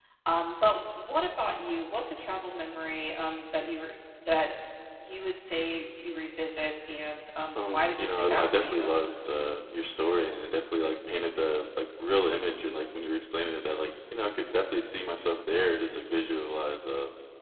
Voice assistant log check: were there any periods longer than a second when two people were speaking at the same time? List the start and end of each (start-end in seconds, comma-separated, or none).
7.6-8.9